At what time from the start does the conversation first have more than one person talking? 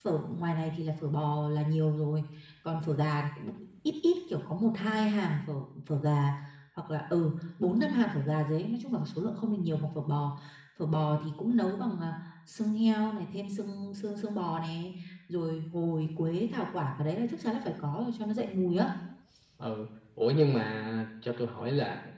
none

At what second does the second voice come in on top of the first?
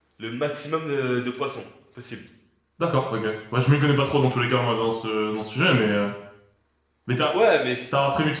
none

